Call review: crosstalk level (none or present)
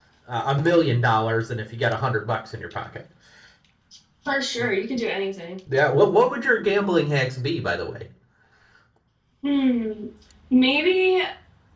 none